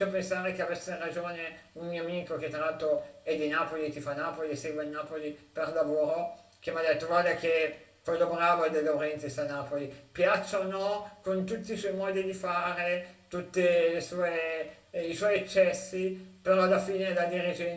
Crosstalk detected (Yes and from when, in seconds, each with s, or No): No